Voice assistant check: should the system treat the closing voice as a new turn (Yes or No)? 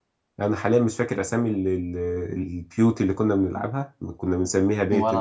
No